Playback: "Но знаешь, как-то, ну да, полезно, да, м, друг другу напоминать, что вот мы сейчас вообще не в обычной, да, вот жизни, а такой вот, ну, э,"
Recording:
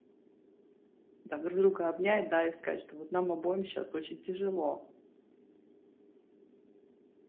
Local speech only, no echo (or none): там друг друга обнять, да, и сказать, что вот нам обоим сейчас очень тяжело.